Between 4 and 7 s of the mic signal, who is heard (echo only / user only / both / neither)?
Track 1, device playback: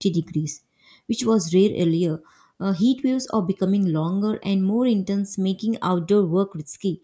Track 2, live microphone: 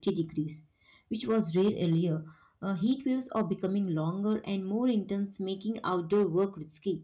echo only